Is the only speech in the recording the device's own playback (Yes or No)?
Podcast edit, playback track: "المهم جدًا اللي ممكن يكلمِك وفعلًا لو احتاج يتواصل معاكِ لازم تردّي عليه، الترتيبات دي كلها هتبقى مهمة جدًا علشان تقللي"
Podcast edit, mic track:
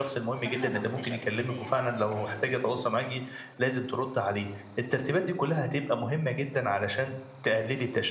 No